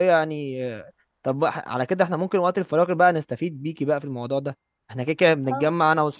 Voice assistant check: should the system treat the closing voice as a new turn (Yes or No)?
No